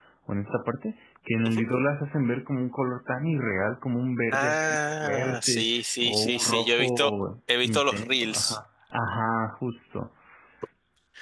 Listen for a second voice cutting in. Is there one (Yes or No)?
Yes